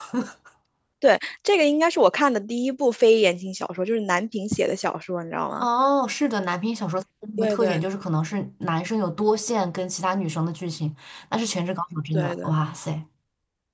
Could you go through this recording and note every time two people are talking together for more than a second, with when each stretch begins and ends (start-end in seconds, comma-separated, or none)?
none